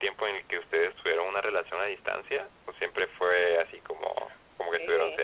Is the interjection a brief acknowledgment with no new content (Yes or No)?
No